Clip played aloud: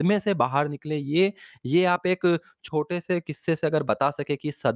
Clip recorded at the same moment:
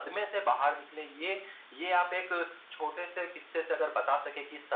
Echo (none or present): present